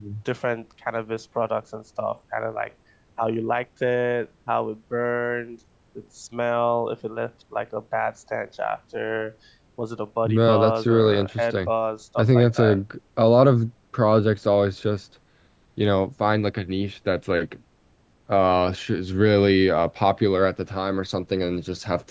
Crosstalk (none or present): present